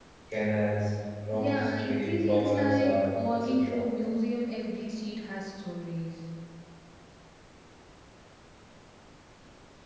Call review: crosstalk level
present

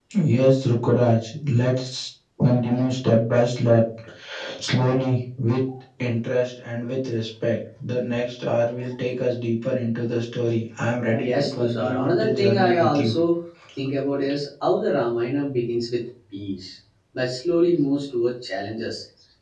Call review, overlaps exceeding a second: present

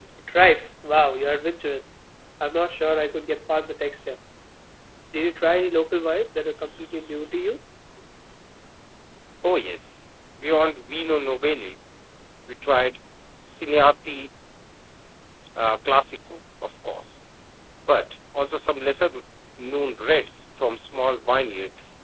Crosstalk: none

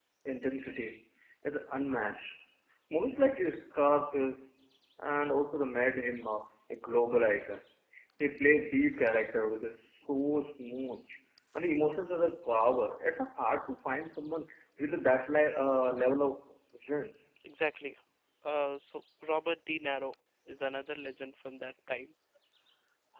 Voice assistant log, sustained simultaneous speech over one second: none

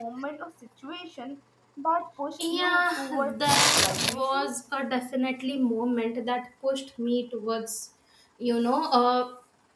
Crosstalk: present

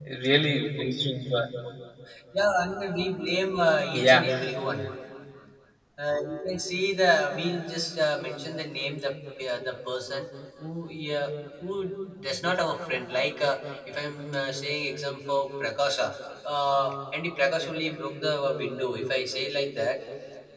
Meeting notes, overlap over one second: none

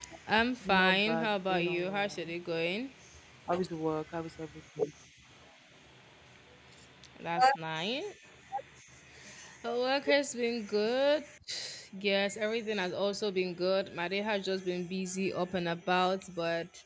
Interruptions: present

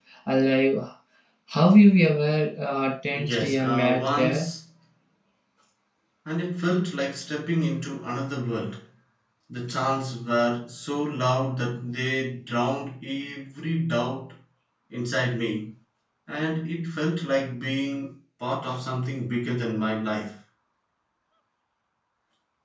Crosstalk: present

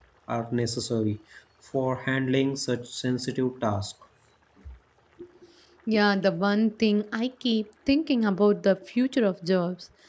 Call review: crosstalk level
none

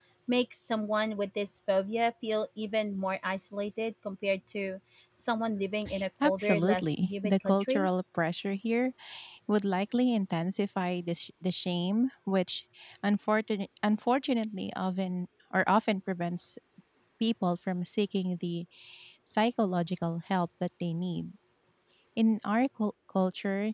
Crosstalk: present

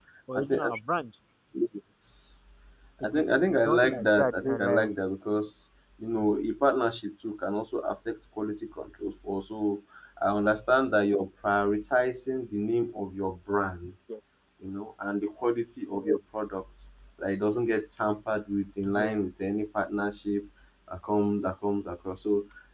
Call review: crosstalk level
present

